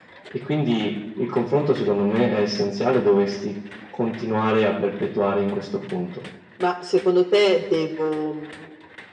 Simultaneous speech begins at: none

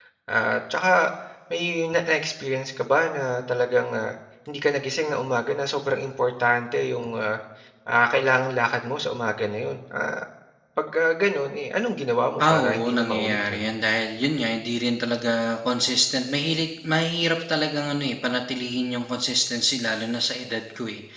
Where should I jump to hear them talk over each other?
12.4 s

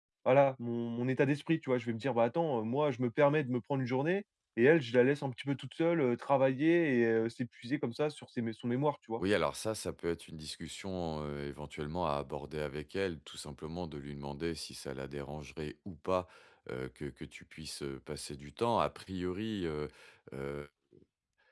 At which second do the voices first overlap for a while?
none

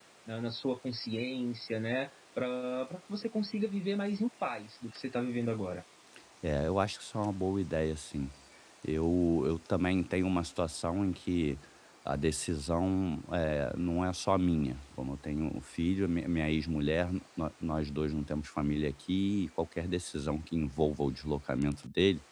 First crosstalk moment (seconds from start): none

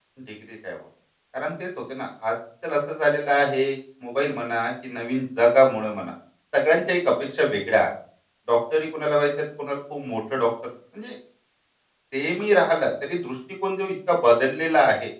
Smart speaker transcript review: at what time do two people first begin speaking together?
none

